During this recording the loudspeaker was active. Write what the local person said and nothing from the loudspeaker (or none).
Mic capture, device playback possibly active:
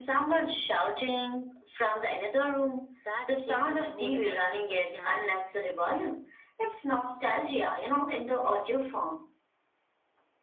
that shaped my whole emotional personality.